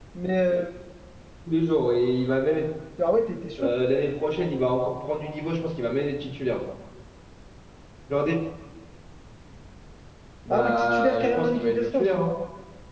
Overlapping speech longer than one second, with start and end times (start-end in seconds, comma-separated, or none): 10.5-12.1